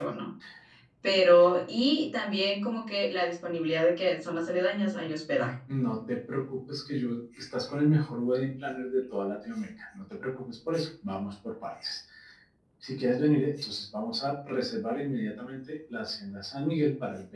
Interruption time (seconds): none

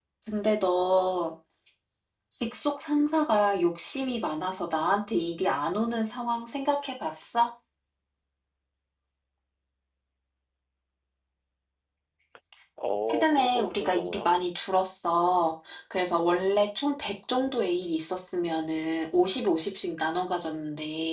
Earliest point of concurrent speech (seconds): 13.0 s

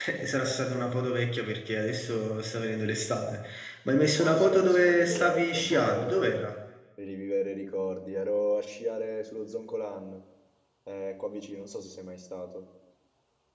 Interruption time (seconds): 4.1 s

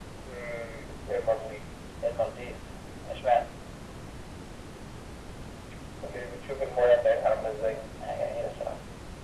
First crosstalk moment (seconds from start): none

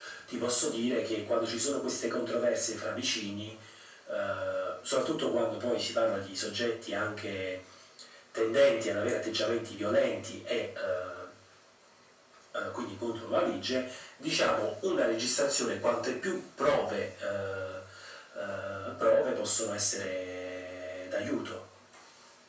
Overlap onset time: none

